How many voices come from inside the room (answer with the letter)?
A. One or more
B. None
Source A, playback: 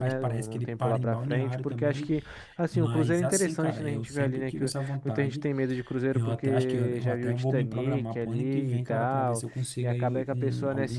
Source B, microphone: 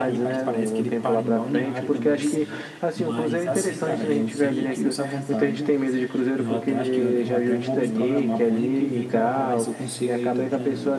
A